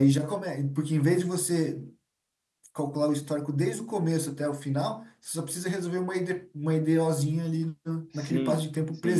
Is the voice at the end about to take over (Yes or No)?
Yes